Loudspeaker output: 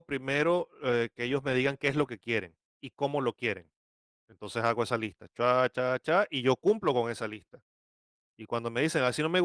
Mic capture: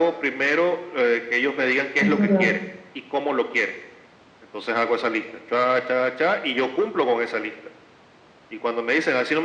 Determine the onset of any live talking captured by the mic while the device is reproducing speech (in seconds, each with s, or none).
2.0 s